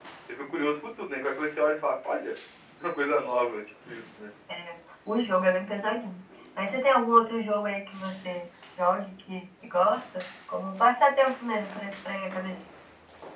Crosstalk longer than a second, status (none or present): none